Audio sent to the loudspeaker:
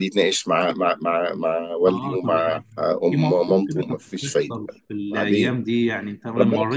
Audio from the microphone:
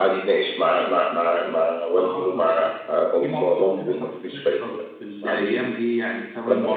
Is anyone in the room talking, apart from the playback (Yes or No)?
No